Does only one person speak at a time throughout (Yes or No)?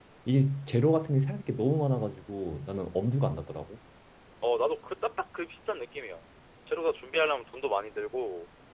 Yes